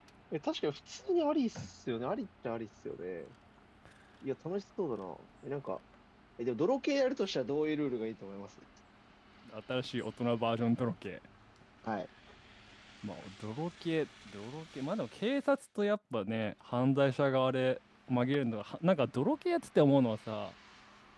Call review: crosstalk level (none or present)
none